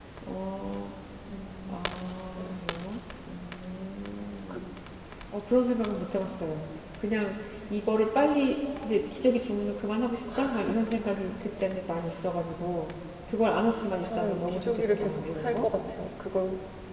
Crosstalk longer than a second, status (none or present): present